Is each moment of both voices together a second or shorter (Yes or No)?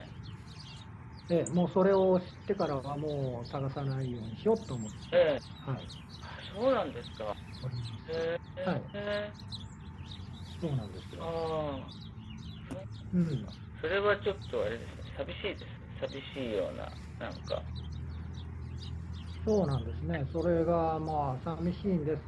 Yes